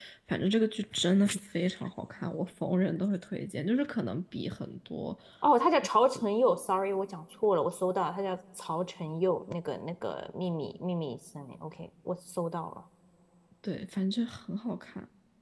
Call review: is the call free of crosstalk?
Yes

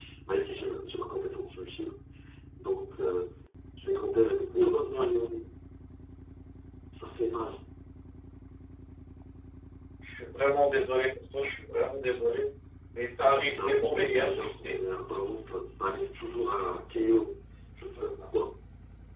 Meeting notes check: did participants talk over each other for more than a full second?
Yes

